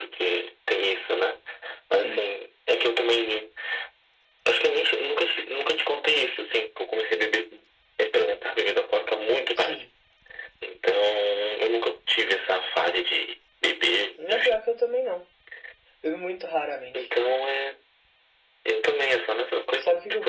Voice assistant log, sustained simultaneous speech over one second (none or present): none